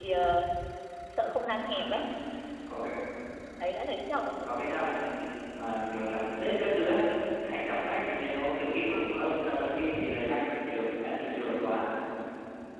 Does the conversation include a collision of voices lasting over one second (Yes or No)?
No